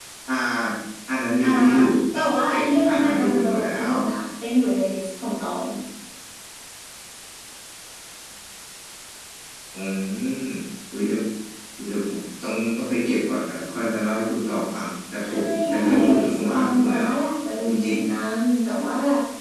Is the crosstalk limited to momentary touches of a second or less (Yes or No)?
No